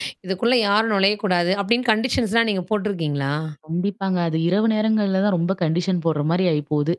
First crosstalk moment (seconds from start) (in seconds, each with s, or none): none